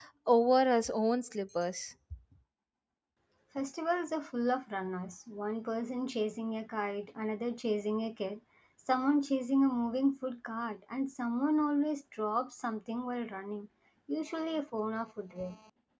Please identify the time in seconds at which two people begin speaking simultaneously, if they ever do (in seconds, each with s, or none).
none